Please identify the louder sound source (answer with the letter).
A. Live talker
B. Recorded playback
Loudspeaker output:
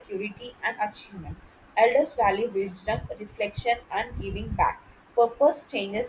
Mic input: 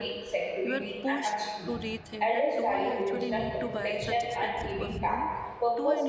B